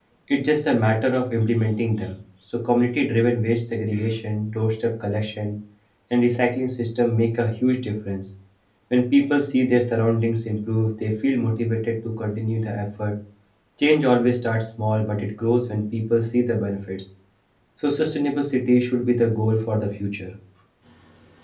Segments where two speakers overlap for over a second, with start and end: none

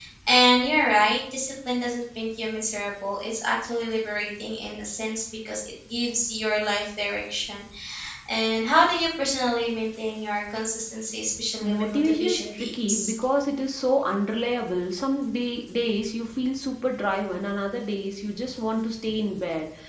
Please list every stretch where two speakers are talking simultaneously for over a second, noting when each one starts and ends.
11.6-13.1

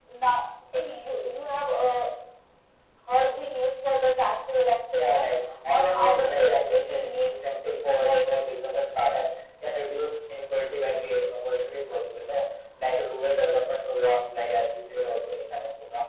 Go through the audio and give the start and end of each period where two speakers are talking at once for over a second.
5.8-7.5

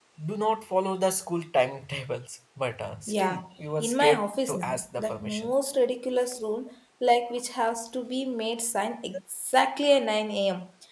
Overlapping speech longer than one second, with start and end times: 3.8-5.5

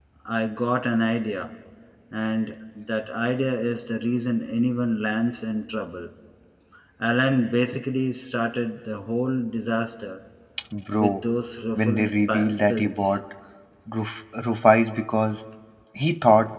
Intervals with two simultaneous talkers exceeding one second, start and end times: 11.8-13.2

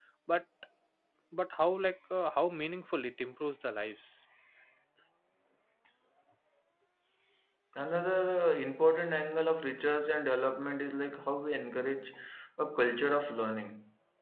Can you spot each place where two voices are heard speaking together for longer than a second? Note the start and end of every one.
none

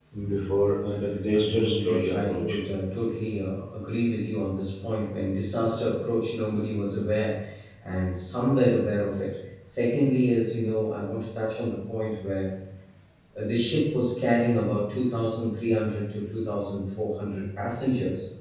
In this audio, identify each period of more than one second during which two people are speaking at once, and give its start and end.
1.3-2.5

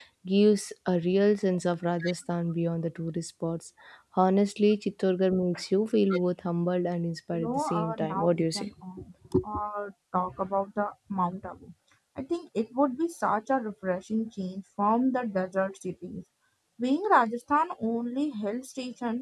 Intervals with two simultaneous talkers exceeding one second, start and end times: 7.3-8.7

